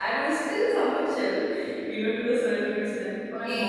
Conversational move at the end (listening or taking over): taking over